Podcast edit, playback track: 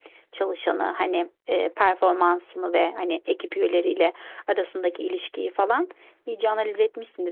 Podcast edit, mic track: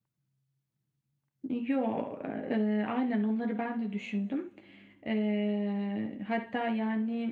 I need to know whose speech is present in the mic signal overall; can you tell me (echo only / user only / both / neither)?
user only